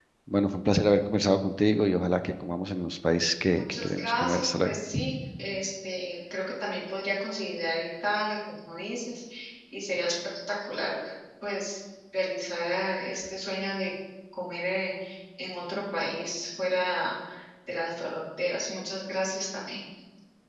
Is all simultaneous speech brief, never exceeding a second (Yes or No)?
No